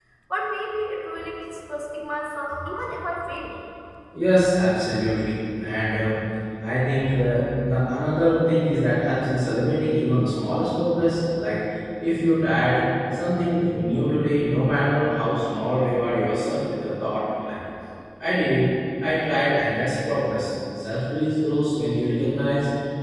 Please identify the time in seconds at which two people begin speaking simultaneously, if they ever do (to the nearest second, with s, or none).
none